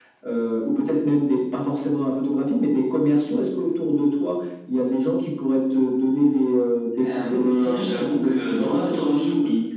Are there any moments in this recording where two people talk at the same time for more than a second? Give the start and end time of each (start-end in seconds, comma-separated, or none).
7.0-8.9